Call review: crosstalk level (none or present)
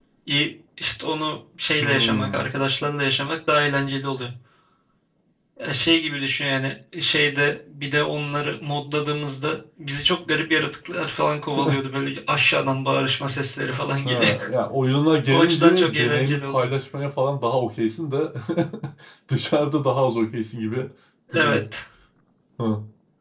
present